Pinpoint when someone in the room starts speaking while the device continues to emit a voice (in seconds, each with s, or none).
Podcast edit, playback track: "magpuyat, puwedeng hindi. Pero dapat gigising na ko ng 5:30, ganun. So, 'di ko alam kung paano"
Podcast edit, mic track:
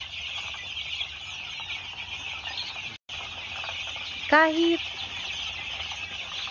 4.3 s